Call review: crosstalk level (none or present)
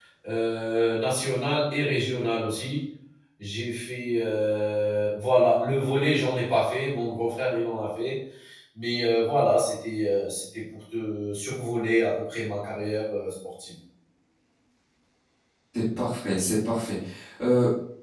none